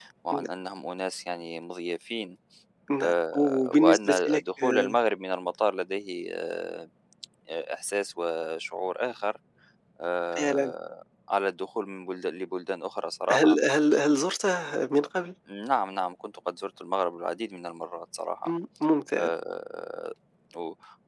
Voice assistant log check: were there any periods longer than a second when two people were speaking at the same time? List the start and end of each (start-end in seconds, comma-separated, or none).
3.0-5.0